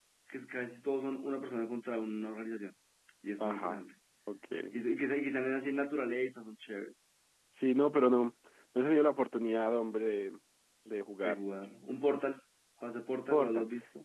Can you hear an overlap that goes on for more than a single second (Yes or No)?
No